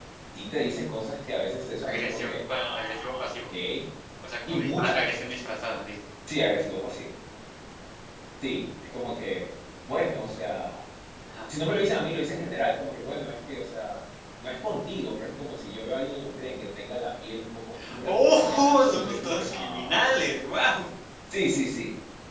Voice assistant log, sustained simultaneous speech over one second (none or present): present